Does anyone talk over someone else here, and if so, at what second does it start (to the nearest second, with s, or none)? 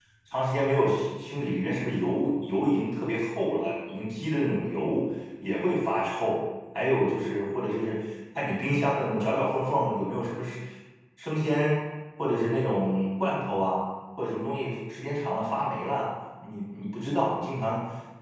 none